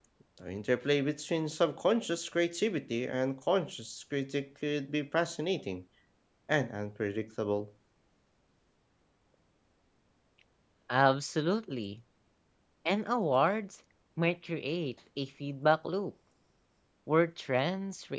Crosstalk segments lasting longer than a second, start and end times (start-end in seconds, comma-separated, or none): none